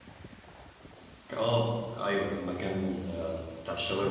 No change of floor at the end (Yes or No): Yes